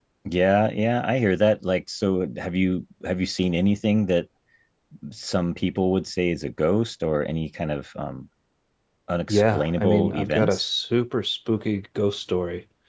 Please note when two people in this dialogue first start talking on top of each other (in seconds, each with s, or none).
9.3 s